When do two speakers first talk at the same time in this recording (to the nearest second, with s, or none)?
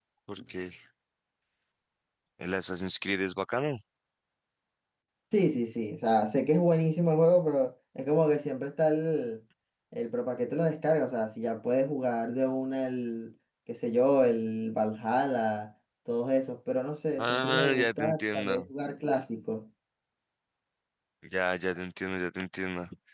17 s